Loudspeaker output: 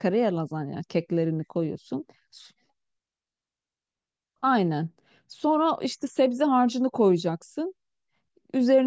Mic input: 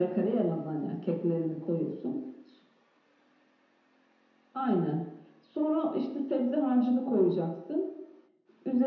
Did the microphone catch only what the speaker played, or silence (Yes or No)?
Yes